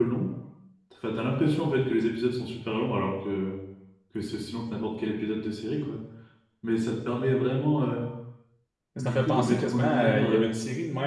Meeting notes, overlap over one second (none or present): present